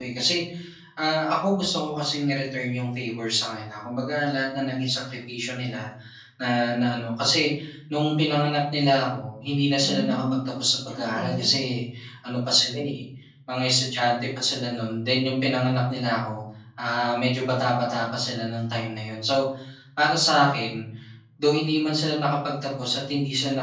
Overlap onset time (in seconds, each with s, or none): 9.8 s